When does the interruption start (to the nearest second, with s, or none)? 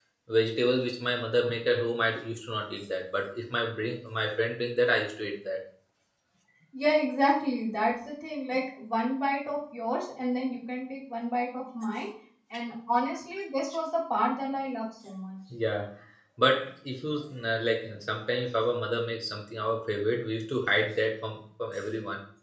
none